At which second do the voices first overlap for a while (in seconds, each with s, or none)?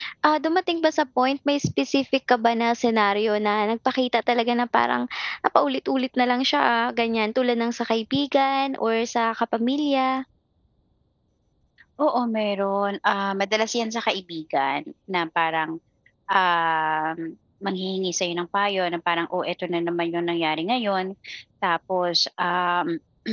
none